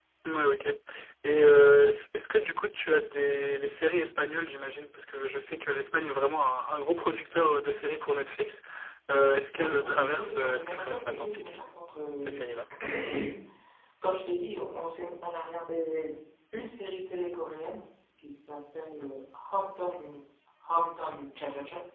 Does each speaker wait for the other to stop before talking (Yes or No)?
No